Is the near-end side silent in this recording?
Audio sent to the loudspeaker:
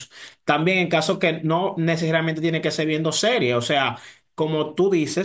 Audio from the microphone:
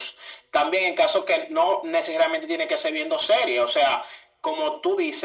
Yes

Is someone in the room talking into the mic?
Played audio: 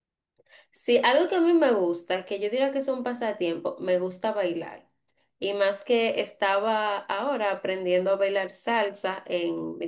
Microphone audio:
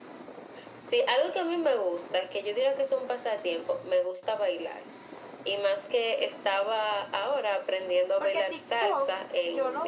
Yes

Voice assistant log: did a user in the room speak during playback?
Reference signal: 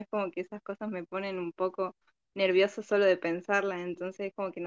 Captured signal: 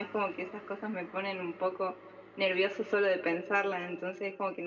No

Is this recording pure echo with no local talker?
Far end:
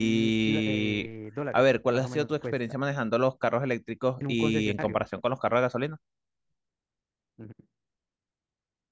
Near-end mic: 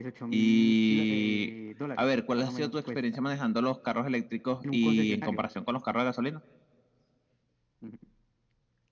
Yes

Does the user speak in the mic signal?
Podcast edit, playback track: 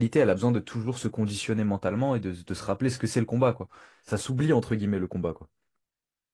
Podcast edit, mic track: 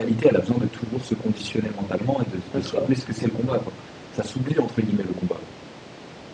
Yes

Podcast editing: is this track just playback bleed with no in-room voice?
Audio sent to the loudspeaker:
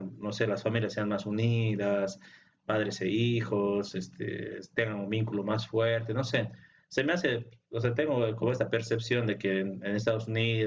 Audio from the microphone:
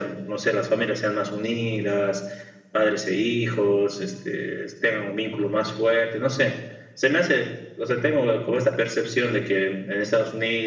Yes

